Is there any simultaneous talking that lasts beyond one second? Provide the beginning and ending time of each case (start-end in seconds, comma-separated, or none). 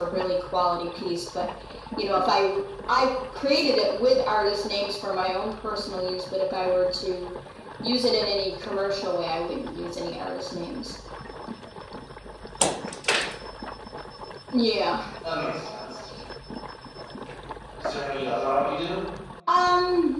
none